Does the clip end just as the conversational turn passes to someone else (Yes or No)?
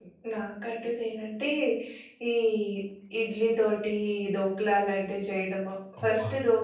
No